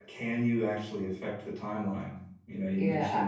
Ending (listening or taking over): taking over